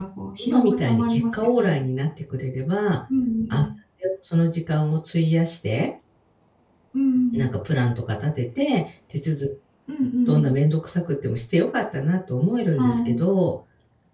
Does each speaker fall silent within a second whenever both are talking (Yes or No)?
No